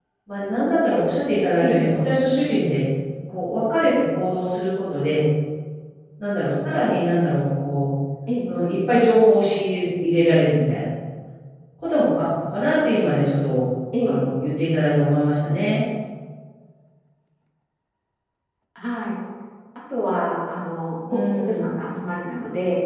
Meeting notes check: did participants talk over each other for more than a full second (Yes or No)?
No